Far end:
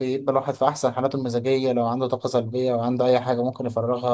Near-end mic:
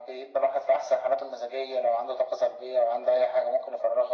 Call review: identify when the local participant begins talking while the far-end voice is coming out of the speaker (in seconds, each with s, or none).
none